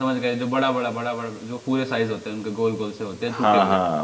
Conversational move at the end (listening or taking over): taking over